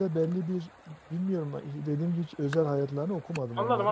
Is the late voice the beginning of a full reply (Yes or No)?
Yes